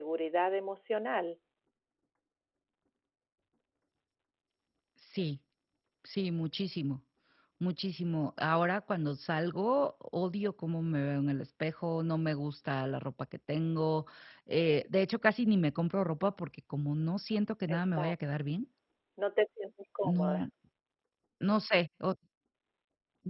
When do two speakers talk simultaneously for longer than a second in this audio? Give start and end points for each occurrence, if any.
none

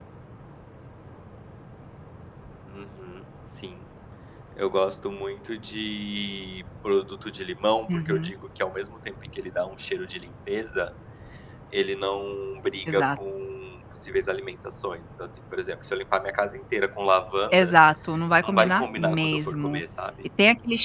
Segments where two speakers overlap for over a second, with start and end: 18.4-19.8

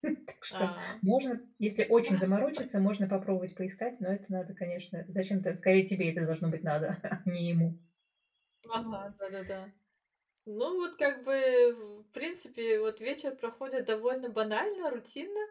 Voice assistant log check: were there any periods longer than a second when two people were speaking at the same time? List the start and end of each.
none

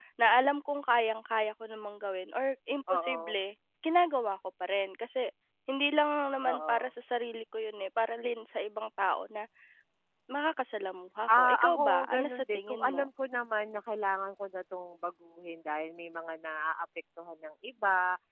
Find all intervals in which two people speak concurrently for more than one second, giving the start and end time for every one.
11.3-13.1

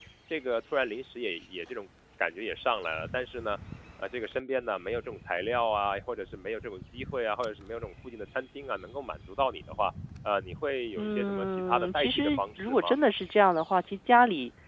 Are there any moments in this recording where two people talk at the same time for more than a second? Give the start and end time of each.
11.0-12.9

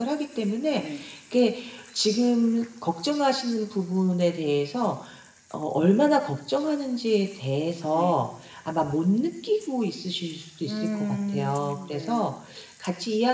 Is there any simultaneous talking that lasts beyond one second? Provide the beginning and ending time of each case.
10.7-12.2

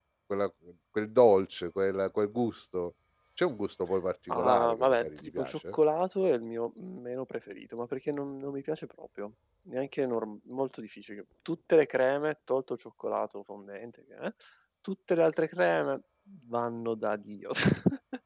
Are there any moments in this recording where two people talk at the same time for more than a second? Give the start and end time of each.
4.3-5.8

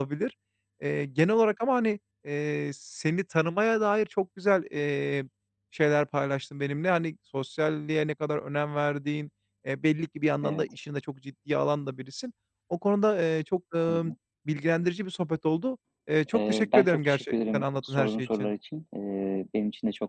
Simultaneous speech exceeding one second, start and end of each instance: 16.3-18.5

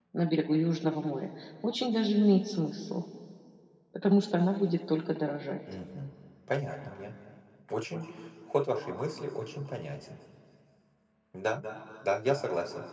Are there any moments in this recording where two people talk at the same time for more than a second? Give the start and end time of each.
none

